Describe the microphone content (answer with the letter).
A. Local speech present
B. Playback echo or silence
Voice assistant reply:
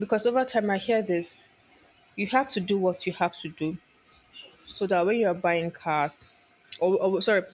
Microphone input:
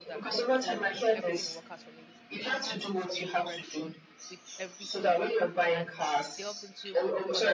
A